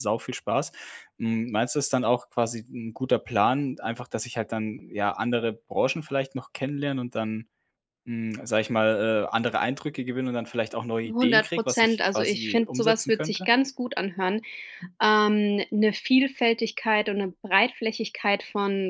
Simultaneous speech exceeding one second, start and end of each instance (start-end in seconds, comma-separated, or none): 11.1-13.5